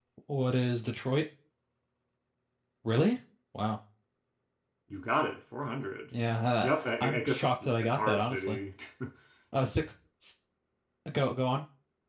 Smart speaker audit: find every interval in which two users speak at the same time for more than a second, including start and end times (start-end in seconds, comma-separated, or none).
6.6-8.6